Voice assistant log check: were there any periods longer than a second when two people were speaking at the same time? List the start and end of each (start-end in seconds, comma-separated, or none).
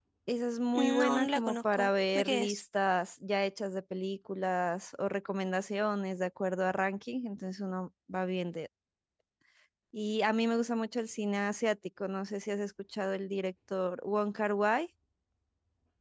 0.7-2.6